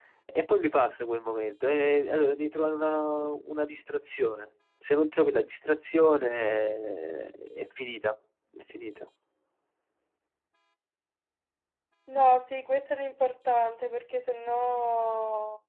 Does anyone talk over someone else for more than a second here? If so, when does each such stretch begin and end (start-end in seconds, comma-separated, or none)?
none